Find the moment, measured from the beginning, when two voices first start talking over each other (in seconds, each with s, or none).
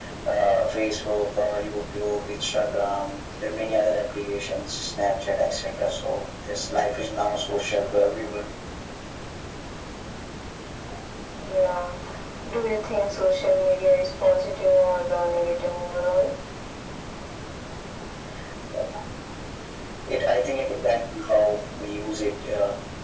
none